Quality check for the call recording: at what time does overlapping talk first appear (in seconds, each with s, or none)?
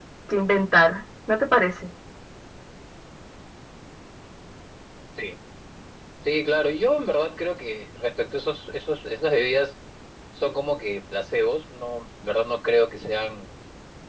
none